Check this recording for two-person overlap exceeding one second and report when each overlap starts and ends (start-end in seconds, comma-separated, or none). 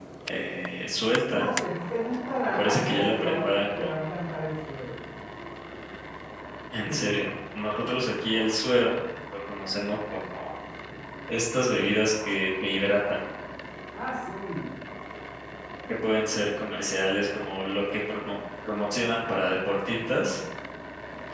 2.6-3.9